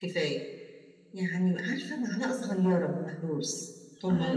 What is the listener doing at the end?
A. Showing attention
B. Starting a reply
B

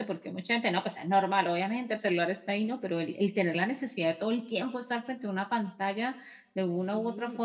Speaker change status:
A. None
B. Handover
A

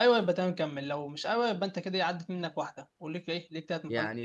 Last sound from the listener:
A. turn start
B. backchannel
A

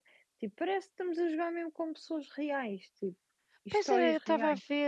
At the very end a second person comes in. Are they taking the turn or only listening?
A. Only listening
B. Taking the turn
B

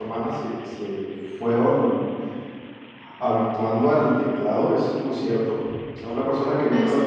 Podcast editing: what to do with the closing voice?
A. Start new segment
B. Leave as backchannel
B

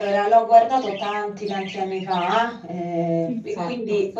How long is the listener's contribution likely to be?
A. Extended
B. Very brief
B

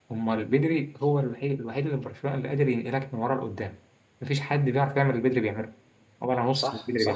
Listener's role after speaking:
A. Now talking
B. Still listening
A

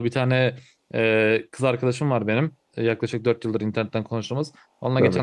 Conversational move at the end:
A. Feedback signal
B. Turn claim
A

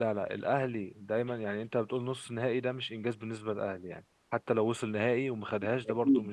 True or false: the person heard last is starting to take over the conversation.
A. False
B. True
B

